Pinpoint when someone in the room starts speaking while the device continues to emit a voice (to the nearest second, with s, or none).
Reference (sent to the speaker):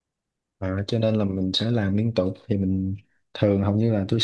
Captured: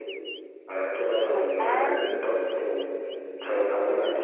1 s